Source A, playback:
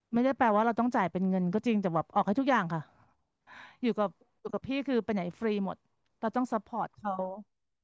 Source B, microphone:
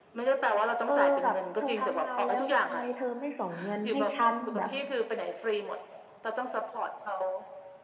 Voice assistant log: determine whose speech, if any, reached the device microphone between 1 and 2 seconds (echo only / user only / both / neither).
both